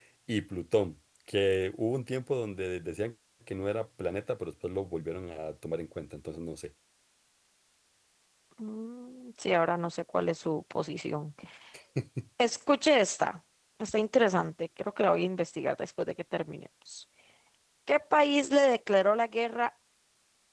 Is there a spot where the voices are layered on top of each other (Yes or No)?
No